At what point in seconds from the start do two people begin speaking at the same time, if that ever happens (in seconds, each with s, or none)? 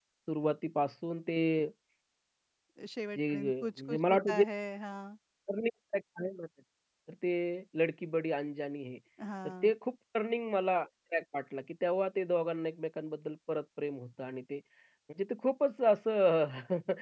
3.2 s